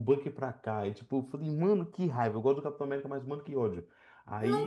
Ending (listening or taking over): taking over